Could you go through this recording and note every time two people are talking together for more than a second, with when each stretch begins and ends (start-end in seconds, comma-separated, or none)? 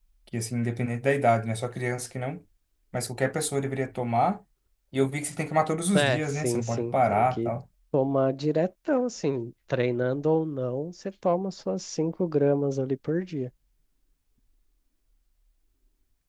5.9-7.5